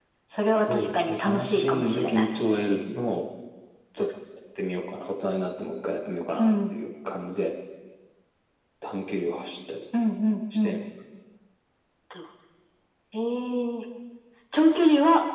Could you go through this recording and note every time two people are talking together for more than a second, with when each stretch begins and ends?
0.7-2.3

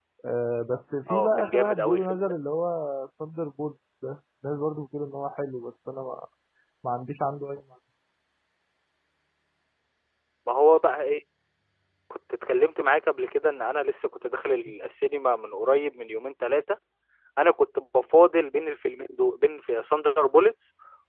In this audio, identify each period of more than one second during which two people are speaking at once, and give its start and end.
1.1-2.3

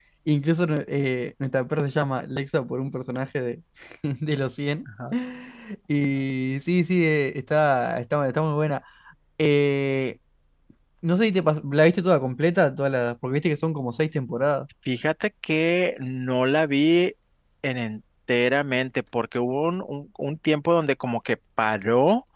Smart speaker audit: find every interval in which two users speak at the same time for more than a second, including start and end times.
none

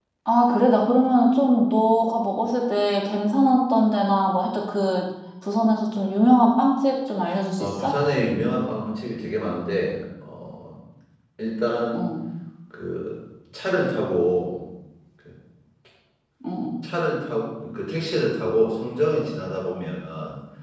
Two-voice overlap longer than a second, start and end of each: none

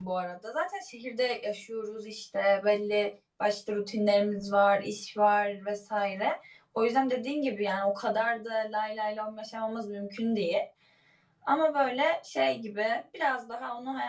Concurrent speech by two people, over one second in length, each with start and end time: none

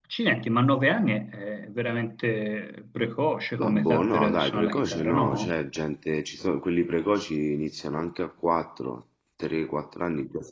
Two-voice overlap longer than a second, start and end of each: 3.6-5.6

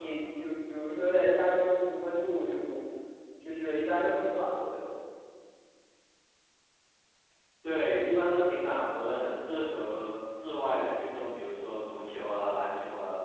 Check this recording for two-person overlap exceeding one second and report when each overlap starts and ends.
none

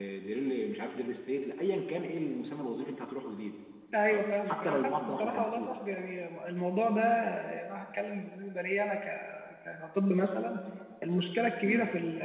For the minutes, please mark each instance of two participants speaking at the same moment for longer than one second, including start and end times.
4.1-5.8

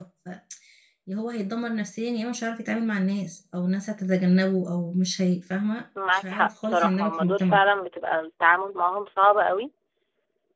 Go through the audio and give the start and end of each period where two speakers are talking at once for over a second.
6.1-7.6

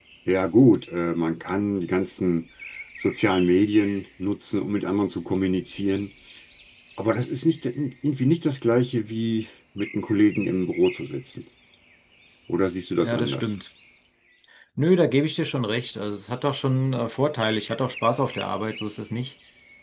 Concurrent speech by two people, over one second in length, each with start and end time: none

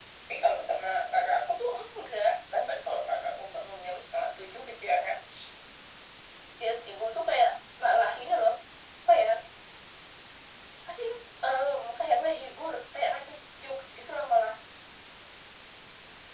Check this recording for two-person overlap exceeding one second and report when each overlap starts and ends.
none

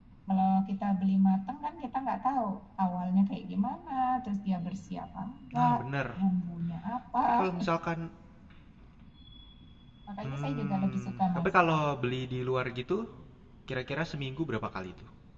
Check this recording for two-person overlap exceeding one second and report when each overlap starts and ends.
10.2-11.8

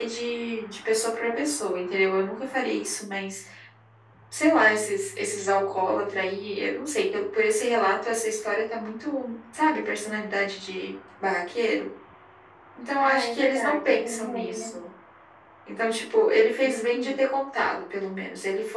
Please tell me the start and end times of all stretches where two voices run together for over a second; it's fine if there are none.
13.0-14.7

